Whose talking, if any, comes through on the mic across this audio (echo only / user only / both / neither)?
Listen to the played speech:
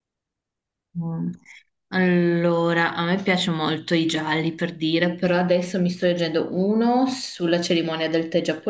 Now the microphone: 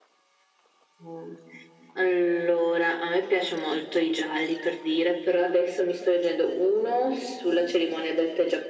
echo only